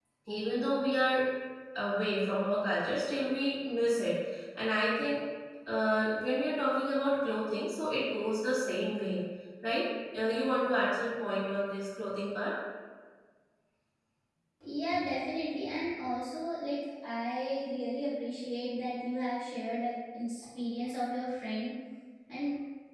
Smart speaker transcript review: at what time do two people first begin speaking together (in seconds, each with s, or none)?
none